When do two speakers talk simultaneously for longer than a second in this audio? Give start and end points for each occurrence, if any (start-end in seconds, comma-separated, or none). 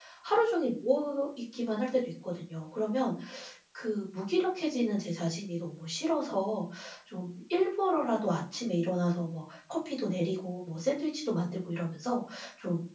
none